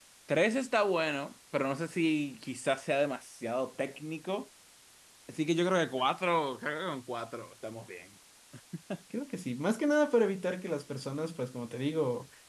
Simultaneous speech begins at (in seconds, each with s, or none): none